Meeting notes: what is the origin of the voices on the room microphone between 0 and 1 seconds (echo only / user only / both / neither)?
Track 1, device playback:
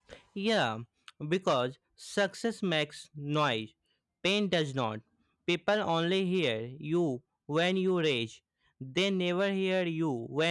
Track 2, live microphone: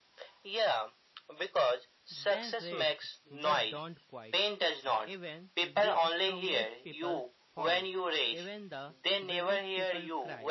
echo only